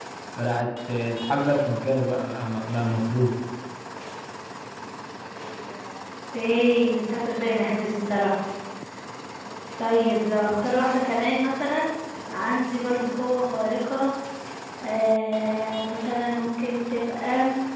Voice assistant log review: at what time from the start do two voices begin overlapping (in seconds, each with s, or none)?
none